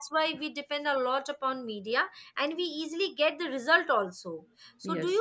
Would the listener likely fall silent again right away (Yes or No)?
Yes